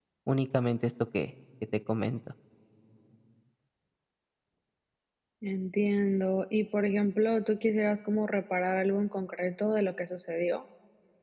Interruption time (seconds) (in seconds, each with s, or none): none